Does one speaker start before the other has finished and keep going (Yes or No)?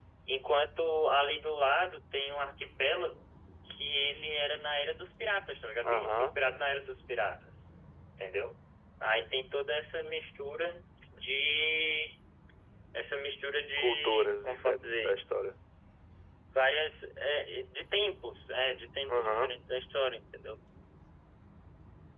Yes